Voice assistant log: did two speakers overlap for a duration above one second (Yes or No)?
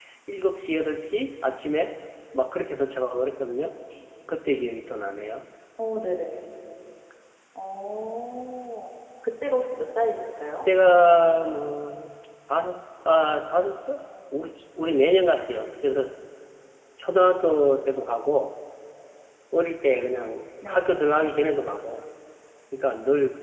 No